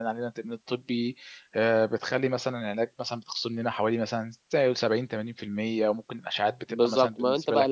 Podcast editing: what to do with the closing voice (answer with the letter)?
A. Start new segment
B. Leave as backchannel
A